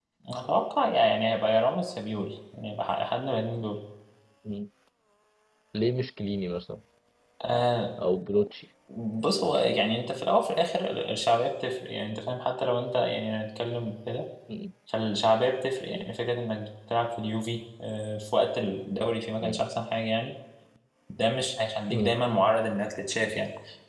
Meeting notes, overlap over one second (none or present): none